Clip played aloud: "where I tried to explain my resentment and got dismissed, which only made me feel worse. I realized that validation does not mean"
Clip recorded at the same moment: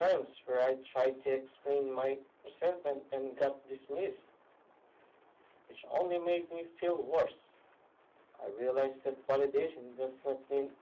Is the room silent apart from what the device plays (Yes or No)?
Yes